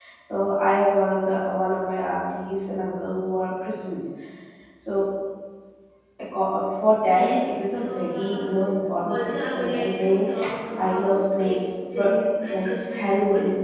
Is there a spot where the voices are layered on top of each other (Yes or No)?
Yes